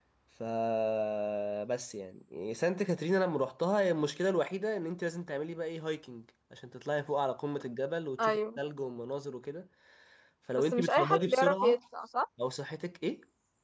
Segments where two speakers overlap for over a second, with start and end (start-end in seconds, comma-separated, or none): 10.6-11.8